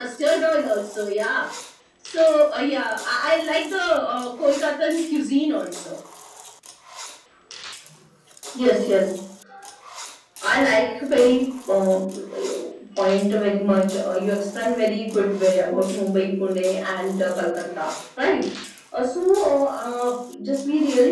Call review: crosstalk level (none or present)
none